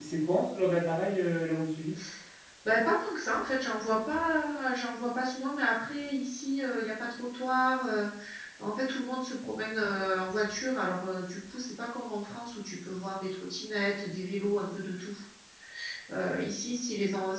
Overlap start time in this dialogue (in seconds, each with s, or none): none